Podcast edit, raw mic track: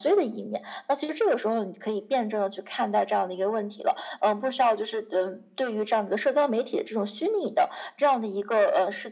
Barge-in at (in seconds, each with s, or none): none